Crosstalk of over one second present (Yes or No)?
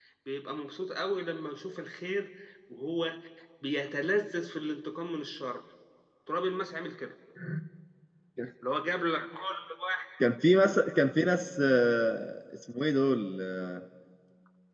No